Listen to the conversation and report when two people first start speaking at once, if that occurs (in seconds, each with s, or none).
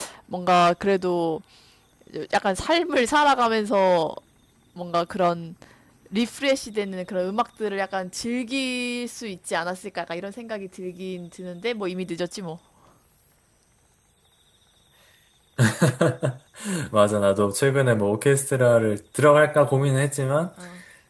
none